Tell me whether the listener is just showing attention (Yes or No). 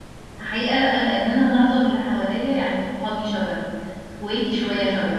Yes